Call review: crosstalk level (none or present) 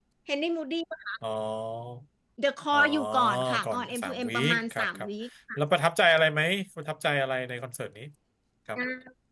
present